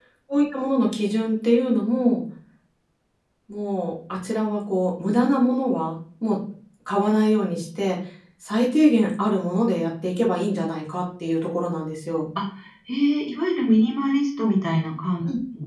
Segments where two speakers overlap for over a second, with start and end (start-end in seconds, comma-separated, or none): none